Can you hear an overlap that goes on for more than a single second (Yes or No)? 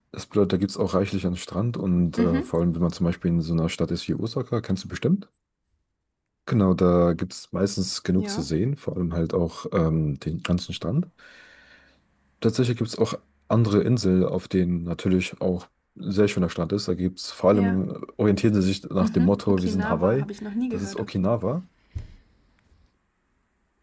Yes